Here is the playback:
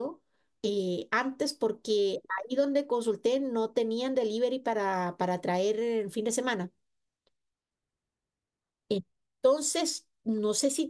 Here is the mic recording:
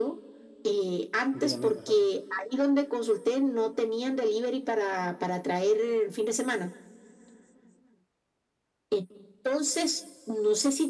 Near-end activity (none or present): present